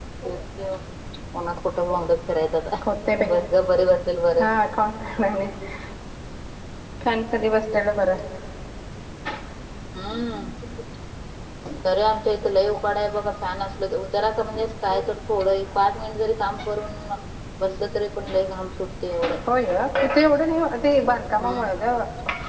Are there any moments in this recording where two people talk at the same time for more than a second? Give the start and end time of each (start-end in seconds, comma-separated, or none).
none